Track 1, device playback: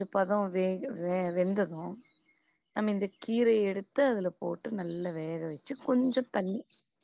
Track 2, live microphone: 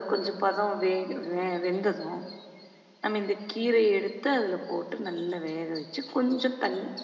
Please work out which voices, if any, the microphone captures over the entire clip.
echo only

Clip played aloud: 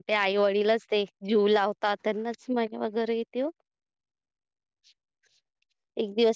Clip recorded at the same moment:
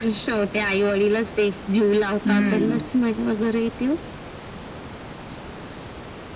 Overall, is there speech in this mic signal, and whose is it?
both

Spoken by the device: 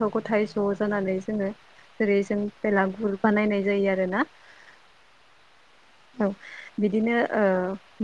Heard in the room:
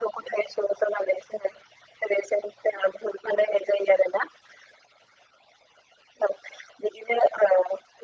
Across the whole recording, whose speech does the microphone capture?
echo only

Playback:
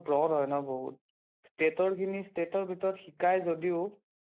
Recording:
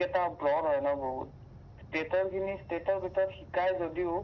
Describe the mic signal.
echo only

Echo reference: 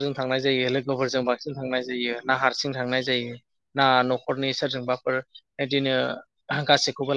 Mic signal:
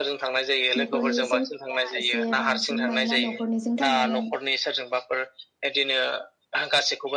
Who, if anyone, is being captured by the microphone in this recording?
both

